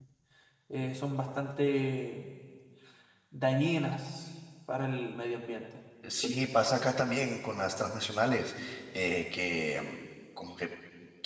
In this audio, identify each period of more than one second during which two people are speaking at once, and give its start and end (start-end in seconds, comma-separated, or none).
none